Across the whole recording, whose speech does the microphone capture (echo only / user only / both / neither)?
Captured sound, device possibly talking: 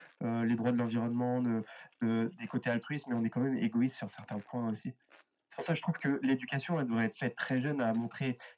echo only